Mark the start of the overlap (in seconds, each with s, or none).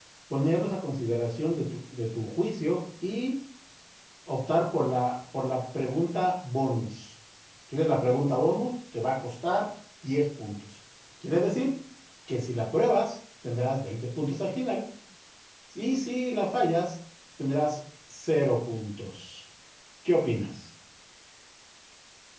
none